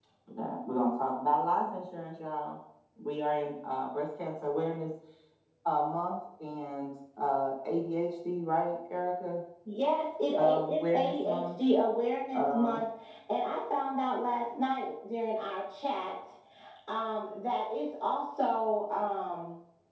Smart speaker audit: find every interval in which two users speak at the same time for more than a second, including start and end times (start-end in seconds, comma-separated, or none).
10.4-11.6